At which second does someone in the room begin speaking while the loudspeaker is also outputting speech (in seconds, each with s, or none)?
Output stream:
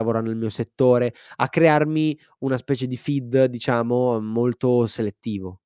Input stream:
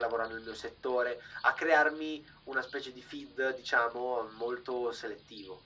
none